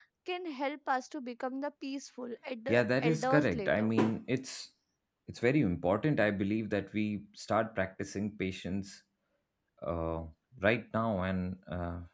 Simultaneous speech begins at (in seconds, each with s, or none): 2.7 s